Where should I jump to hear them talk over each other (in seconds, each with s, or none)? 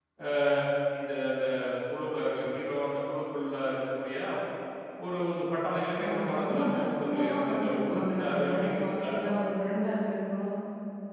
6.0 s